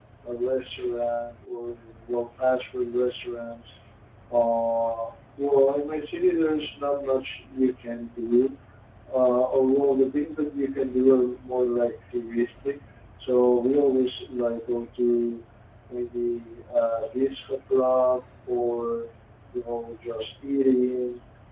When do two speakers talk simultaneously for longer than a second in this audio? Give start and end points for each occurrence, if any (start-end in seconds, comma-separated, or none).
none